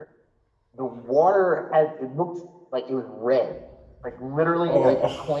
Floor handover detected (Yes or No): No